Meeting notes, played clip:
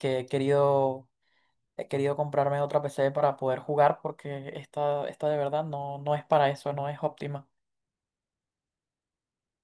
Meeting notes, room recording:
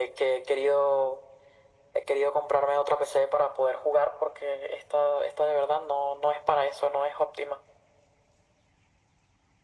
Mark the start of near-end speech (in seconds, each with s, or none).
none